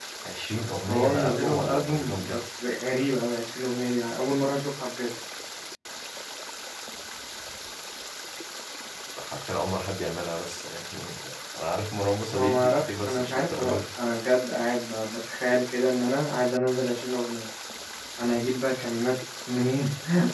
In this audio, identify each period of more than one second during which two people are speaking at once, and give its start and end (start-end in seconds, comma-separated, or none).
0.9-2.4, 12.3-13.8